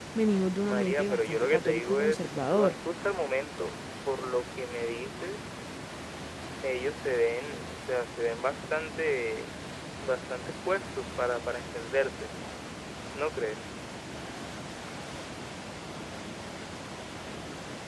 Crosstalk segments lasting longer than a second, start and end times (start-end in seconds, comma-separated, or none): 0.6-2.8